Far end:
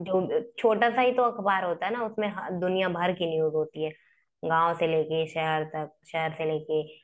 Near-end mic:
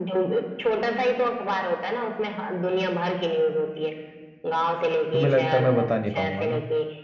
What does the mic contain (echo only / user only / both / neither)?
both